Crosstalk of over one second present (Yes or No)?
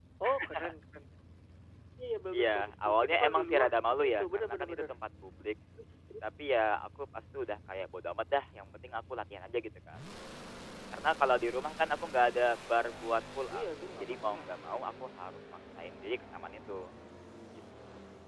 Yes